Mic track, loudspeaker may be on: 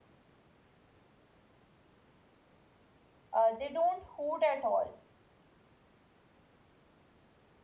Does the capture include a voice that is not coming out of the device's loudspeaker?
Yes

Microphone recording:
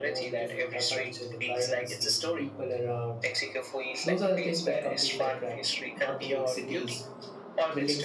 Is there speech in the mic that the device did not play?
Yes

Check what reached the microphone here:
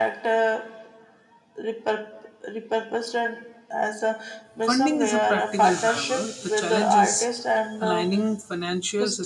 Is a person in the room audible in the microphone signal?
Yes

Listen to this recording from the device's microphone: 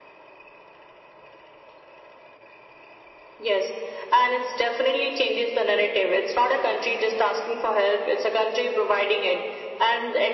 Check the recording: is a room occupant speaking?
No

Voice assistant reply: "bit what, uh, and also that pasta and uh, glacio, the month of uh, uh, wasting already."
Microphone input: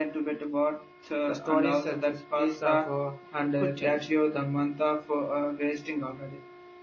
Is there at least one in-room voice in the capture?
Yes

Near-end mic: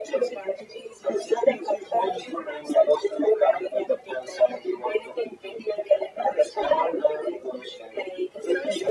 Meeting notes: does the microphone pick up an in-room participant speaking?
No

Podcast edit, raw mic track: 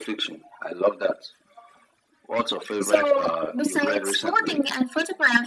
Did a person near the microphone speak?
No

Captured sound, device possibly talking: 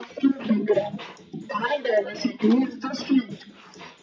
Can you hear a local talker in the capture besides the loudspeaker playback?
No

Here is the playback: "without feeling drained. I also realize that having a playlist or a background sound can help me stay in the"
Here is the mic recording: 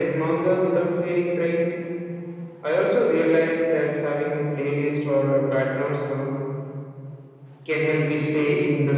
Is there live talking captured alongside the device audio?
No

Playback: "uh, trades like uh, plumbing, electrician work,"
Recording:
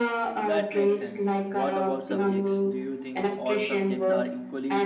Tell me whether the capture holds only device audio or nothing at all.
No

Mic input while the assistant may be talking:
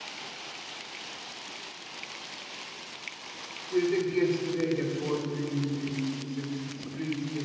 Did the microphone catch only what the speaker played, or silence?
No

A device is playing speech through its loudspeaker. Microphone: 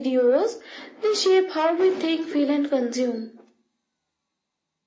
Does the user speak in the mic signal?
No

